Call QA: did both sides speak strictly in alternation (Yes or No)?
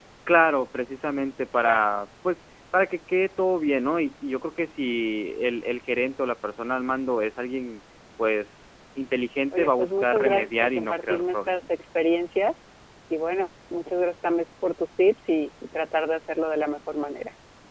No